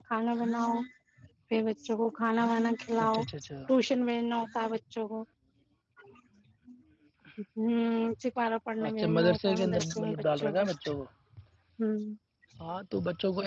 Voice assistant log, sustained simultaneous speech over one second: present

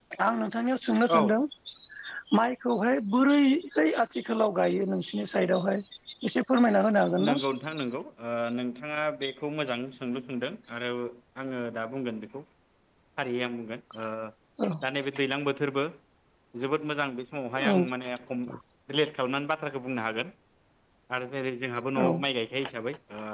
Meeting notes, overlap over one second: none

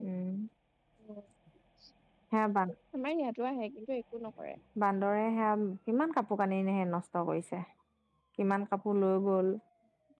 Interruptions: none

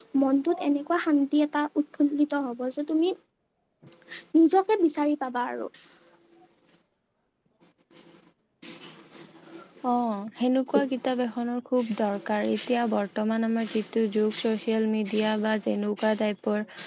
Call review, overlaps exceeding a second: none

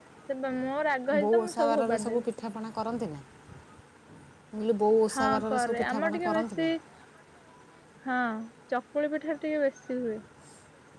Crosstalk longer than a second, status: present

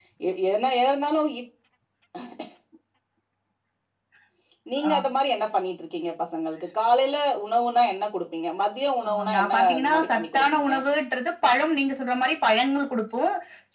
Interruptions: present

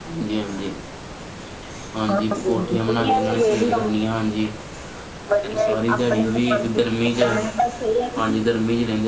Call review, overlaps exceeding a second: present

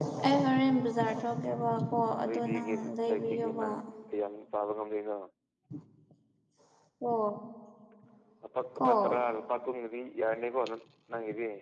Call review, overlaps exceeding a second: present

